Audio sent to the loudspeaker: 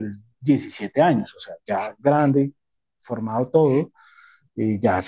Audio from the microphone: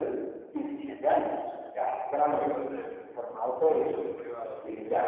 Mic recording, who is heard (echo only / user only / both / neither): both